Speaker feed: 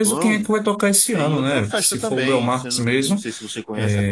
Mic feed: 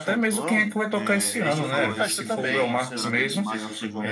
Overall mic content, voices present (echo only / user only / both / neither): both